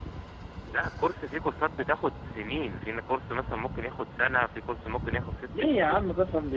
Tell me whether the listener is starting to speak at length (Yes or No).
Yes